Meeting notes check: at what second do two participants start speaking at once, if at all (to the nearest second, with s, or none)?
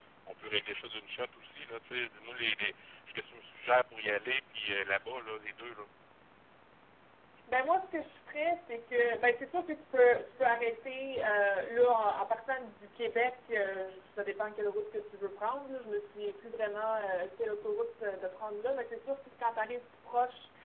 none